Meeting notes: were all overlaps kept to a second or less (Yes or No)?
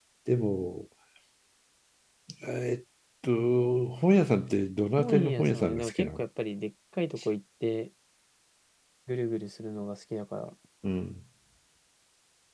No